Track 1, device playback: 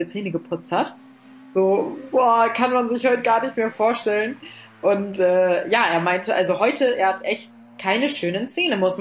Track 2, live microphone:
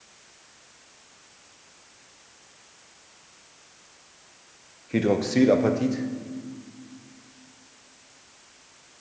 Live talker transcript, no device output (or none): Hydroxylapatit.